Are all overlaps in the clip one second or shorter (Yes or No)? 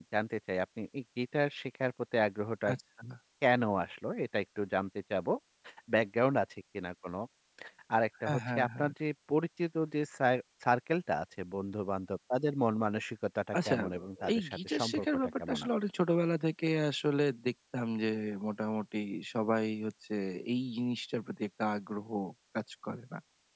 No